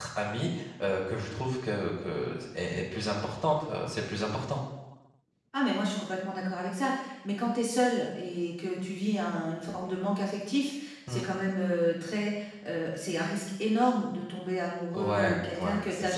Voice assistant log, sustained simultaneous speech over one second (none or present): present